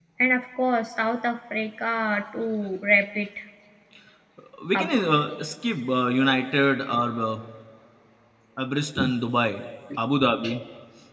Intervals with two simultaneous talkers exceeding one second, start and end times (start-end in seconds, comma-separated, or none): none